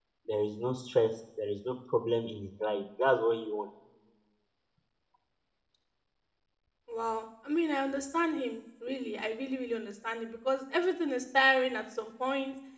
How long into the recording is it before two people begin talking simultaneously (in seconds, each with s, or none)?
none